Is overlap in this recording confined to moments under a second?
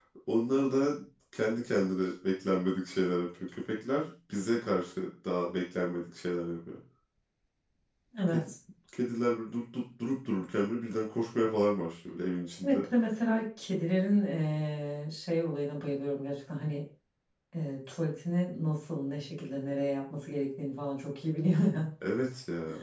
Yes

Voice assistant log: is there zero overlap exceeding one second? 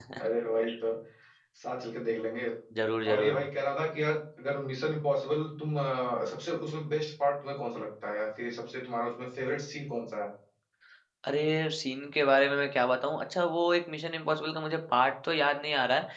Yes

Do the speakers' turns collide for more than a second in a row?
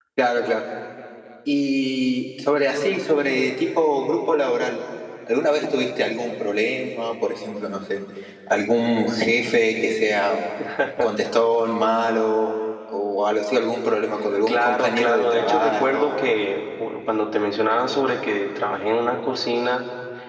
Yes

